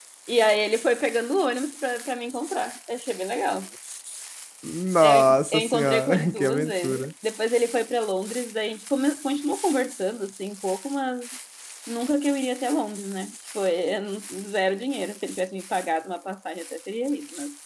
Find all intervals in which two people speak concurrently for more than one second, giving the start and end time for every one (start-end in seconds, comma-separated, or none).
5.0-7.1